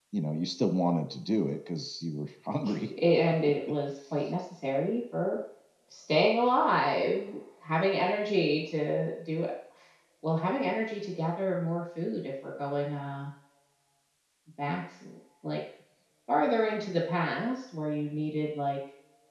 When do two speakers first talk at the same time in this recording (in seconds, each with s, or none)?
none